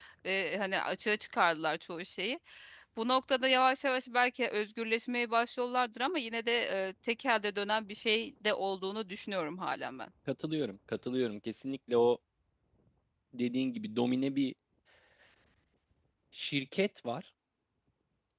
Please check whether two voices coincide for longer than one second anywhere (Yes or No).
No